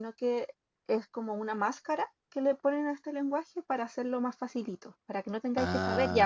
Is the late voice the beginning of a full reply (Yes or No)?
Yes